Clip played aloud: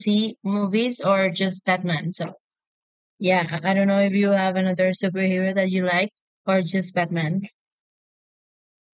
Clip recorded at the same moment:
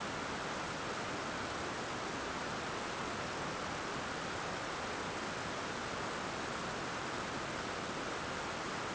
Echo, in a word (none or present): none